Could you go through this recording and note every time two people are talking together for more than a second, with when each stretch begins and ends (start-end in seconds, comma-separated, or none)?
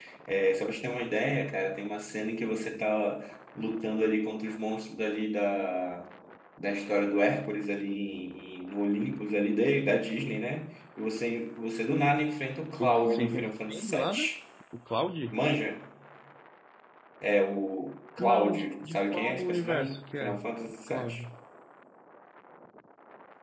12.8-14.3, 18.2-20.4